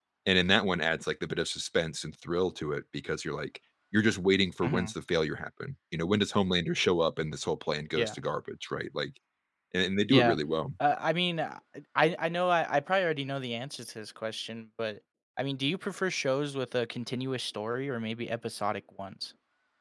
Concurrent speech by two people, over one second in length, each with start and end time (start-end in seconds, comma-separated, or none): none